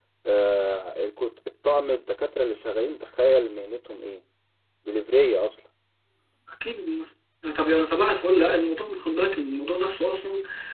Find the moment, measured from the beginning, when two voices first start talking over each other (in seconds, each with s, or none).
none